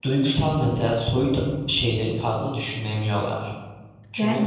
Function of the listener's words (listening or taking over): taking over